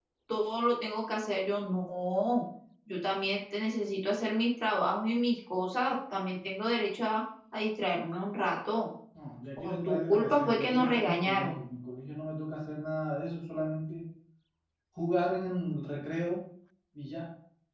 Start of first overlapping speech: 10 s

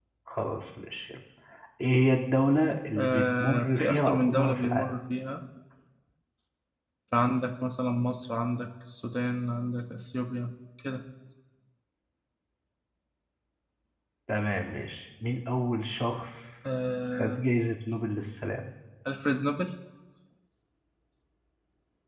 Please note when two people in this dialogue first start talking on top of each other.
3 s

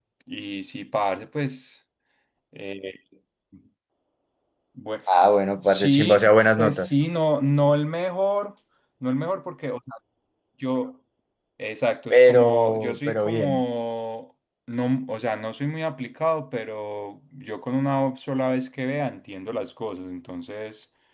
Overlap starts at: 6 s

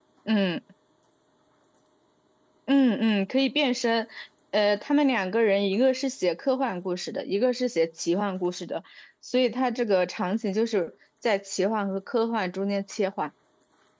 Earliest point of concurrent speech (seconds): none

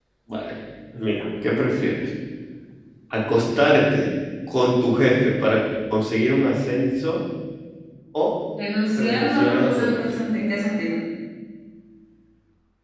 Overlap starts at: 9 s

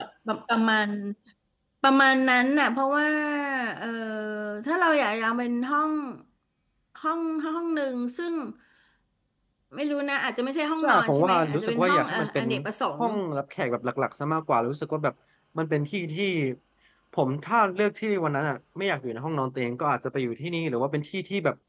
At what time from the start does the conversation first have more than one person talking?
11 s

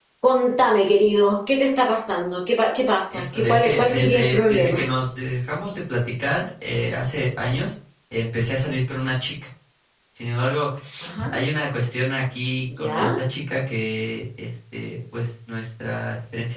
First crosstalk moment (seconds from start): 3 s

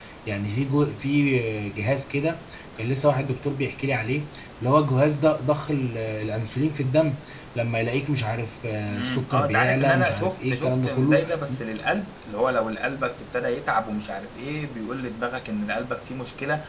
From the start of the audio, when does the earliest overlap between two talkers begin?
9 s

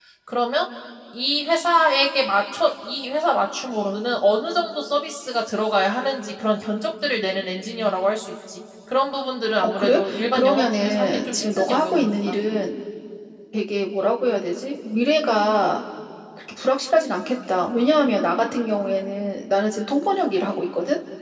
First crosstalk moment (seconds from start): 10 s

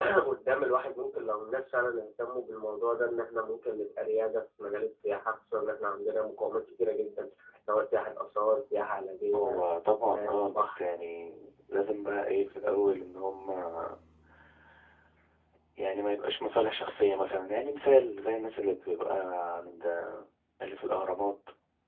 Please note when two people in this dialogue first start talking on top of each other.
9 s

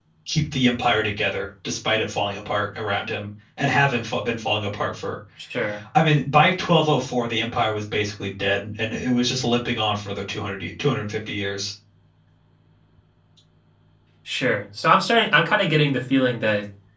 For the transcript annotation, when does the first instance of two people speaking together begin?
none

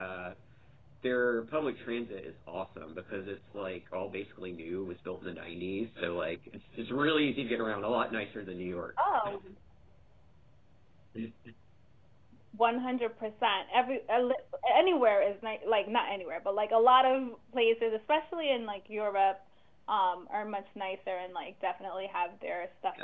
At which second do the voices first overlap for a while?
none

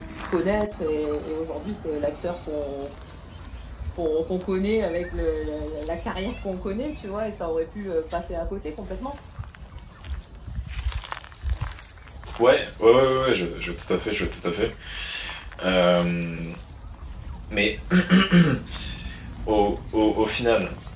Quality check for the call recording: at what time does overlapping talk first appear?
none

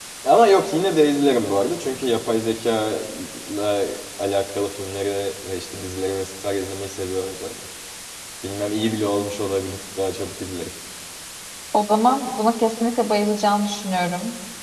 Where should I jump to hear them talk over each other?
none

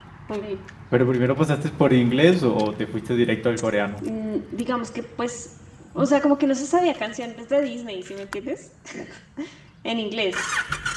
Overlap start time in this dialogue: none

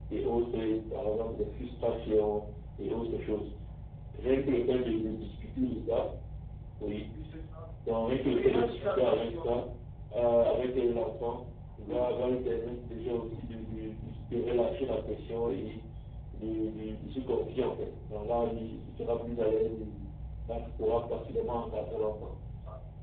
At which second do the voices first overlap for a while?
8 s

